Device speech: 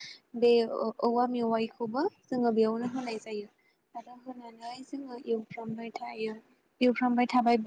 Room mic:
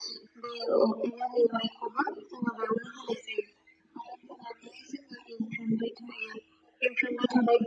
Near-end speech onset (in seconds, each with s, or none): none